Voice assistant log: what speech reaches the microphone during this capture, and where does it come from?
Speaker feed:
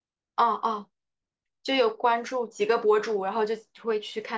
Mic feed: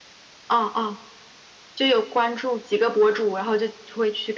echo only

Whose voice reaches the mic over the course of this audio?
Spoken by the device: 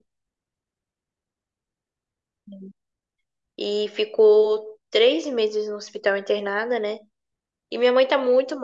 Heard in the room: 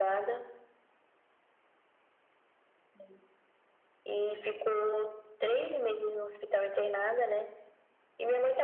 echo only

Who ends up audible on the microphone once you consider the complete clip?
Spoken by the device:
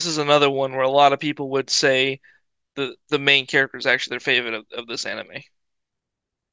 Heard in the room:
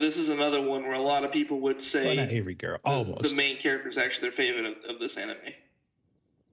both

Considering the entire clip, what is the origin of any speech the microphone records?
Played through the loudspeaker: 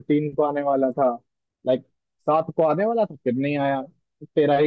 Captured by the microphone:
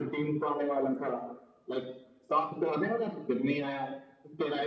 echo only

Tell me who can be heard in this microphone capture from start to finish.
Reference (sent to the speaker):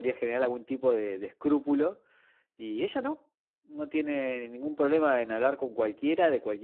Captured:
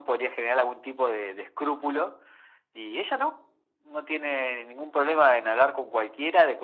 echo only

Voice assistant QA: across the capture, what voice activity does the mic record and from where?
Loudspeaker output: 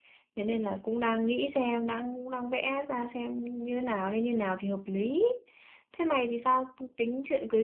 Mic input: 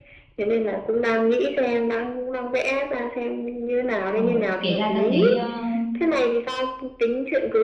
both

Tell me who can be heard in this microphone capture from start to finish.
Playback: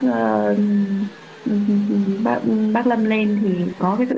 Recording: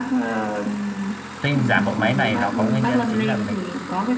both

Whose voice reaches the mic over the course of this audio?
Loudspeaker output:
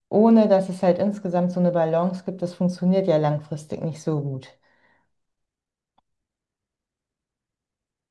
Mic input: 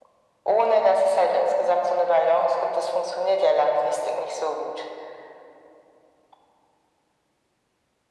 echo only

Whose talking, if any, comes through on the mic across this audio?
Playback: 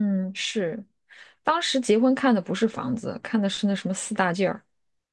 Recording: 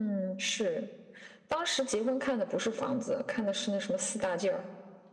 echo only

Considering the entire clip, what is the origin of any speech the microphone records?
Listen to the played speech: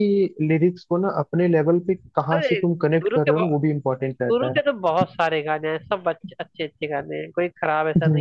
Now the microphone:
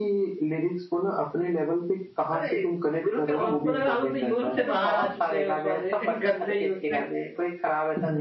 both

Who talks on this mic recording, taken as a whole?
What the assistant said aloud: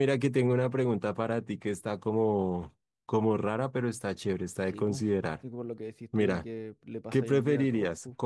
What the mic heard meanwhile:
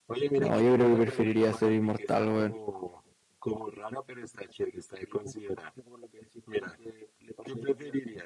both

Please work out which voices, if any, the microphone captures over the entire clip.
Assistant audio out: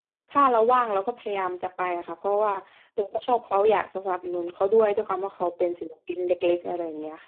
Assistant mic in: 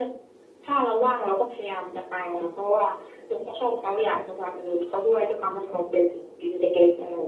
echo only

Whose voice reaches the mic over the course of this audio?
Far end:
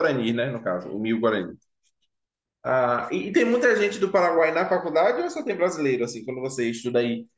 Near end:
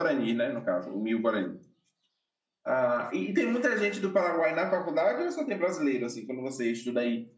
echo only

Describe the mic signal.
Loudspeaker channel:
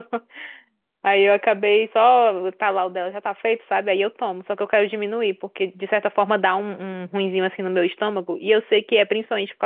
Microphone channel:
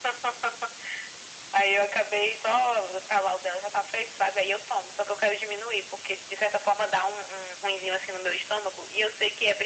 echo only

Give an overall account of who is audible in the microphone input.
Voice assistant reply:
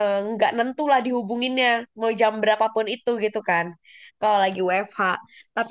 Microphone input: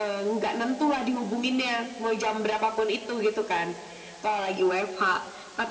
echo only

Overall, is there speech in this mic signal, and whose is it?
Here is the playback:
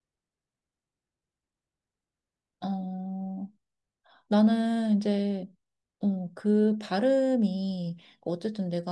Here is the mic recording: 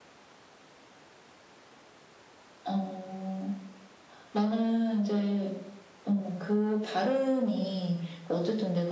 echo only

